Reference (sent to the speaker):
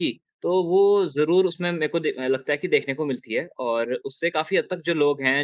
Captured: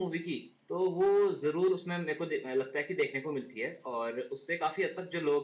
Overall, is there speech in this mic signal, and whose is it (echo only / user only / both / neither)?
echo only